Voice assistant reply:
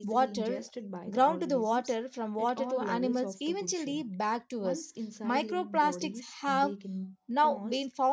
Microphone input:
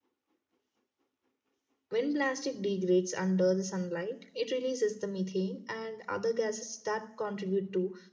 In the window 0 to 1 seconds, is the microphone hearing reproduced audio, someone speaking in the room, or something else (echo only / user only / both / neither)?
neither